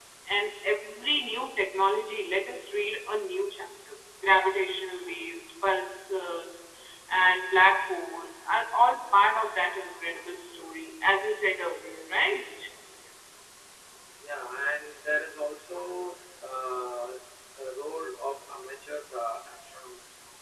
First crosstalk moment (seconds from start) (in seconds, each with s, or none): none